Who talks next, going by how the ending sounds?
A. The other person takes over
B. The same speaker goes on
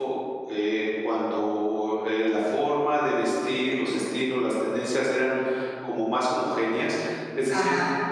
B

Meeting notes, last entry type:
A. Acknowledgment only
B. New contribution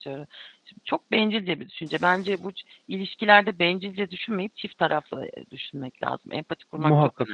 B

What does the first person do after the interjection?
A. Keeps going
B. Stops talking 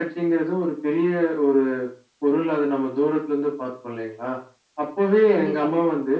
A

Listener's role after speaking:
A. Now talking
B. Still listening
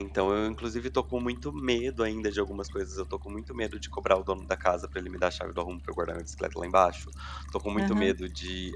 B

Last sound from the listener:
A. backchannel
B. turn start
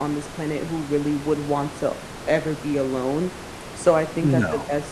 A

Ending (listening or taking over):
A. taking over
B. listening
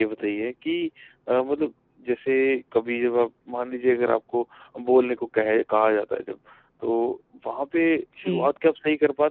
B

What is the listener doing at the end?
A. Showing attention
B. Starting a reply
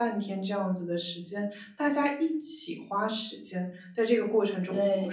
A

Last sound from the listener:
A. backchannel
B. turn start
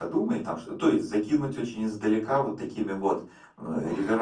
A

